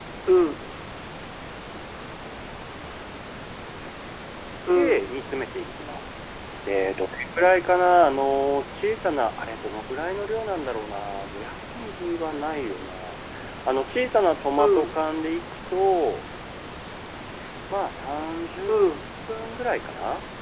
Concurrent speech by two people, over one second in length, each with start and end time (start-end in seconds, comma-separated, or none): none